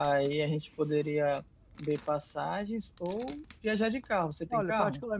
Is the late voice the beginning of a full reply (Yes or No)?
Yes